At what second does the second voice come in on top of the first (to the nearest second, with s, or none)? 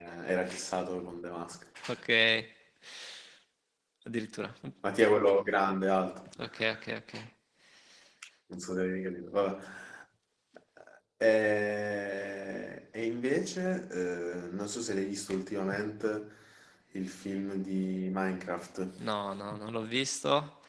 none